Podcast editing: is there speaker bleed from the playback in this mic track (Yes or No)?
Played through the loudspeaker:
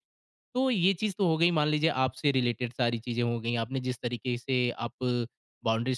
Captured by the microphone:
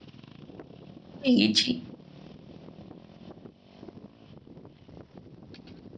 No